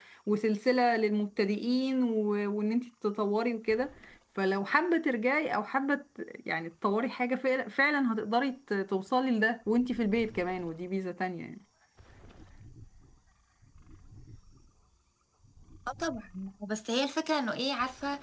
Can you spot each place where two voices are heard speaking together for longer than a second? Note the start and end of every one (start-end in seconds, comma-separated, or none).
none